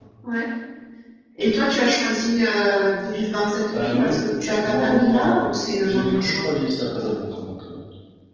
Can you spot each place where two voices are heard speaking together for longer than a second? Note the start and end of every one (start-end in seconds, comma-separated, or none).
4.6-6.4